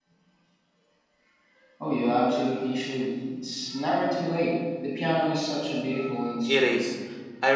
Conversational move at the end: taking over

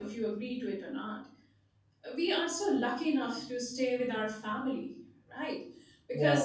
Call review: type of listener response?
listening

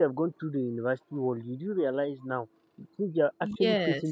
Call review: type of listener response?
listening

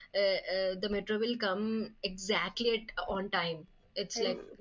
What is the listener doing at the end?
listening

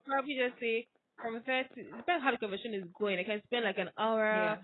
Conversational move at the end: listening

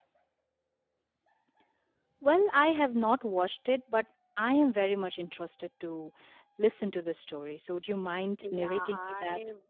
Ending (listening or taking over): taking over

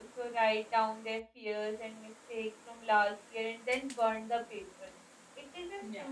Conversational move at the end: listening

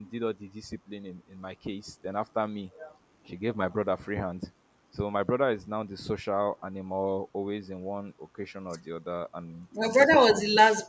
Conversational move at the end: taking over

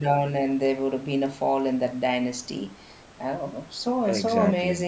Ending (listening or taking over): listening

